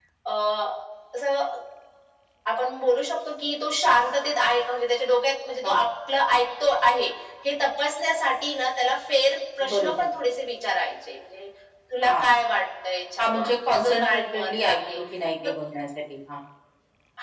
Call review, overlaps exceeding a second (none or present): present